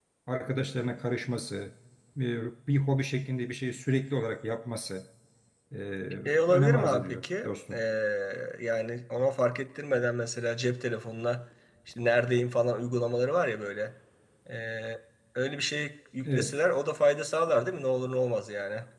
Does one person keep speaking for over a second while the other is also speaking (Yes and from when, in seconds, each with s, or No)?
Yes, from 6.5 s